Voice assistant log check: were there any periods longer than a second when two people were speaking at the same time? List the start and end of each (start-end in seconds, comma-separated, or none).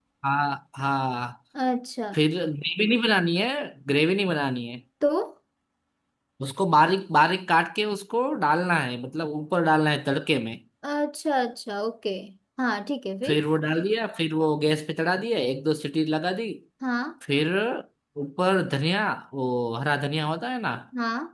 none